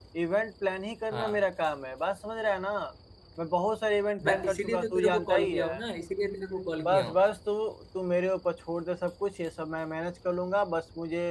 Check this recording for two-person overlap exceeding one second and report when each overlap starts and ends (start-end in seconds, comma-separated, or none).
4.2-5.7